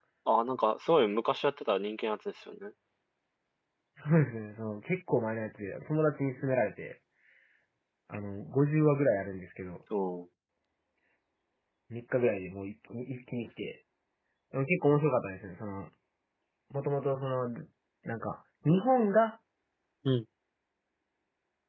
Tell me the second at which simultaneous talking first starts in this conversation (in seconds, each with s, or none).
none